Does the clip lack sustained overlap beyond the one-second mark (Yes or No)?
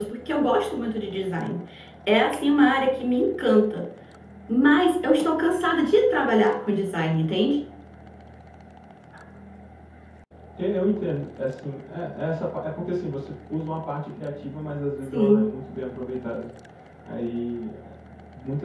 Yes